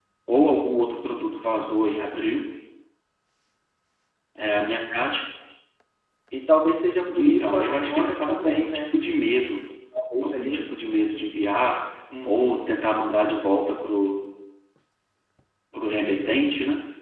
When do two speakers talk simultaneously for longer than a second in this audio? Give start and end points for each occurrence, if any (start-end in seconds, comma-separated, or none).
7.2-8.9